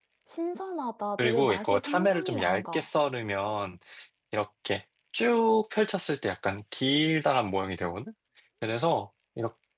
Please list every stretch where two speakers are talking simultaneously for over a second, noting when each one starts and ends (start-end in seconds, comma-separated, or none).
1.2-2.9